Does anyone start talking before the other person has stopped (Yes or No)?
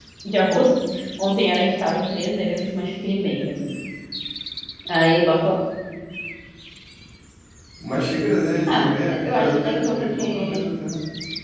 Yes